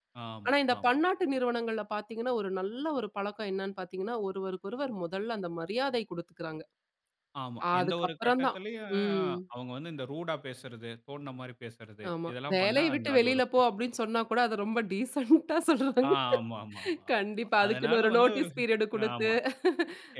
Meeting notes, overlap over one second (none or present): present